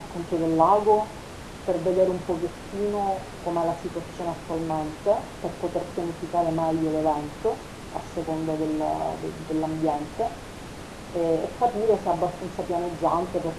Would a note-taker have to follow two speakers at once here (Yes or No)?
No